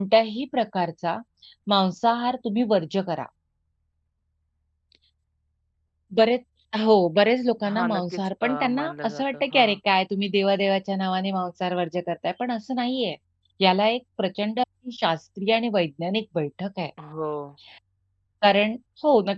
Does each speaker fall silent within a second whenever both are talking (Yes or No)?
No